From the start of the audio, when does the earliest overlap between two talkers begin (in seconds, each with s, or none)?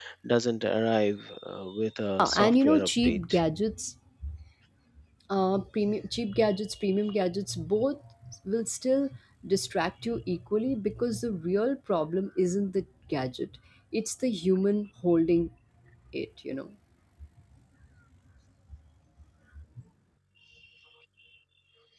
2.2 s